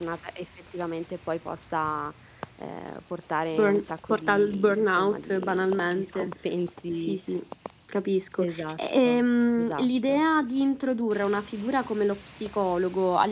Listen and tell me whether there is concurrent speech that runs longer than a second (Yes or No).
Yes